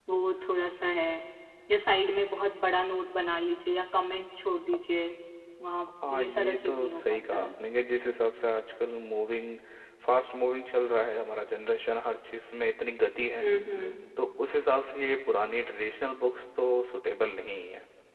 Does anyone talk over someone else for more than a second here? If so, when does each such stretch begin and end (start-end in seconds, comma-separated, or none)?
6.1-7.5